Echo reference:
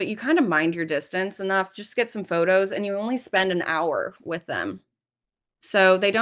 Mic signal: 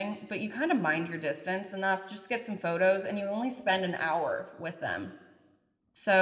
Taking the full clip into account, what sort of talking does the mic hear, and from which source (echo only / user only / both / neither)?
echo only